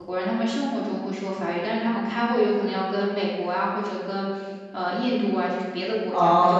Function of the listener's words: taking over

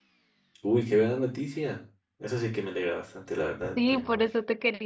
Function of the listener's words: taking over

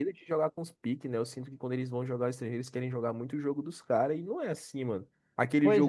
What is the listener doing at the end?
listening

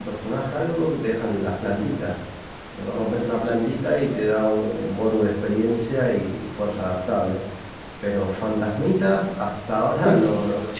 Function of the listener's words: taking over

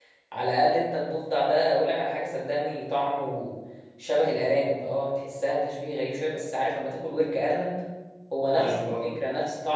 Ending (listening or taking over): listening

